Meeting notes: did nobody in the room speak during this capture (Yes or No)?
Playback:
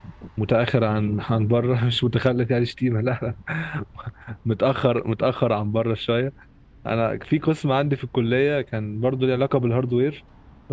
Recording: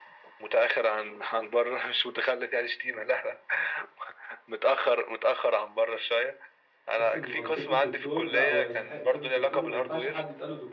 No